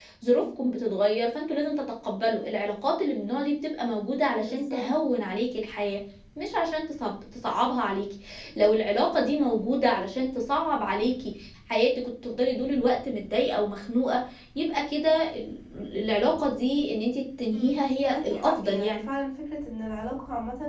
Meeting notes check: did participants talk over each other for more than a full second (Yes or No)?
Yes